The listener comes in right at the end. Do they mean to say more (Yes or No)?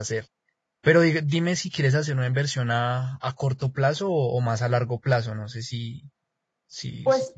Yes